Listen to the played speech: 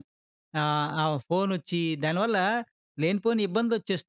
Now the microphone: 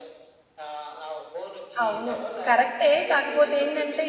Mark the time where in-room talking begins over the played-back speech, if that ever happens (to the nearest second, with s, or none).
2 s